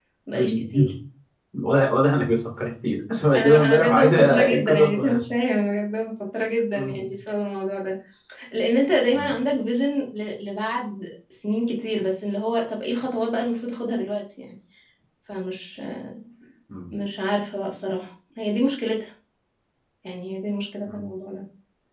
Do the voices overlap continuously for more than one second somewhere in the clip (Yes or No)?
Yes